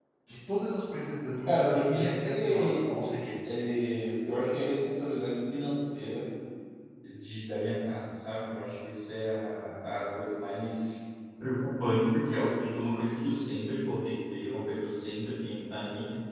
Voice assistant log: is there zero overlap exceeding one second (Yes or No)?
No